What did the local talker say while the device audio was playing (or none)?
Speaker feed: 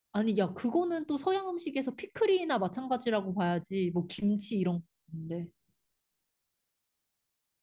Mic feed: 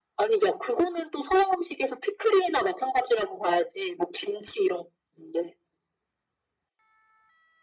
none